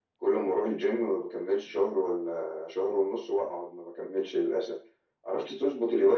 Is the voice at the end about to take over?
No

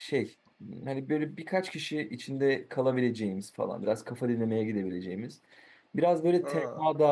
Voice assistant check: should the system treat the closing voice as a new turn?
No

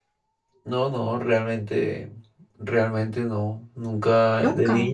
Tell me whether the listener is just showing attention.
Yes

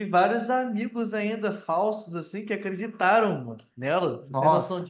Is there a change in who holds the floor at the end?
Yes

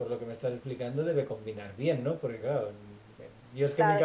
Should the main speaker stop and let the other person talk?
No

